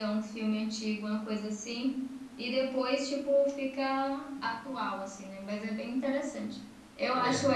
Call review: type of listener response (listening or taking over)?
listening